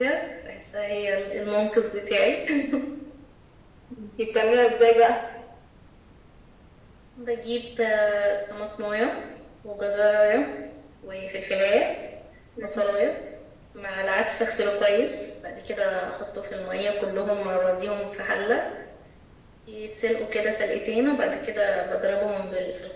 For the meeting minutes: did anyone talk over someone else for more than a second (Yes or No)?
No